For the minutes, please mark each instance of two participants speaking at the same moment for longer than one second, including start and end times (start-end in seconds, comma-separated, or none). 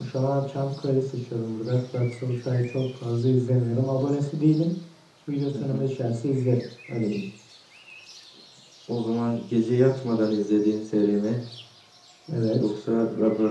none